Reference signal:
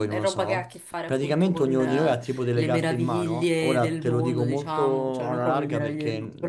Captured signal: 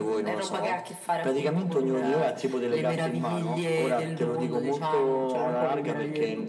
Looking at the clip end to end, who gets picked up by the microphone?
echo only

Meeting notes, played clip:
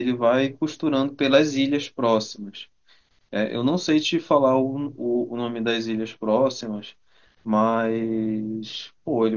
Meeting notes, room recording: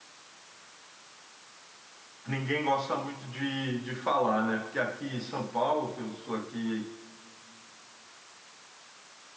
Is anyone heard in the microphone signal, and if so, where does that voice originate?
user only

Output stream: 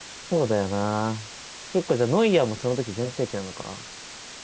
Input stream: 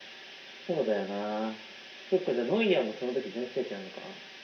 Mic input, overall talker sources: echo only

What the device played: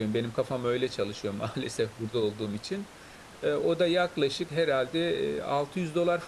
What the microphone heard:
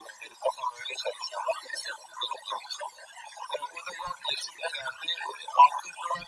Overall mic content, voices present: echo only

